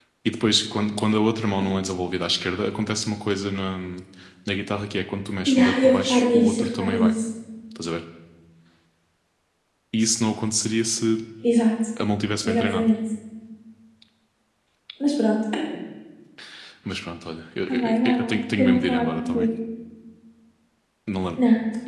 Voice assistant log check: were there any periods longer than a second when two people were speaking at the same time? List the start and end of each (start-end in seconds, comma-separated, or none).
5.5-7.1, 17.7-19.5